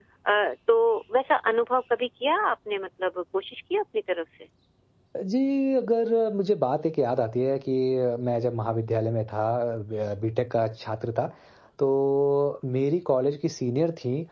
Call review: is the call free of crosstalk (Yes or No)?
Yes